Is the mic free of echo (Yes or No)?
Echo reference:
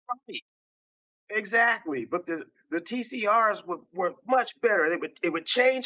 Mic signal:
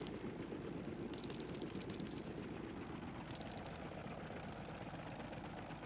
Yes